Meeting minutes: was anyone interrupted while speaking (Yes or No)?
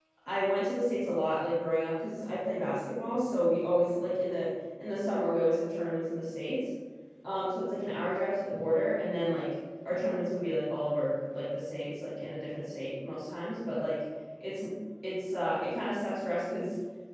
No